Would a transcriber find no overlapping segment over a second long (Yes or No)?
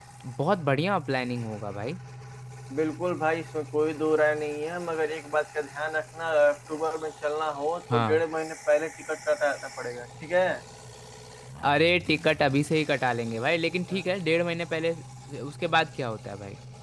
Yes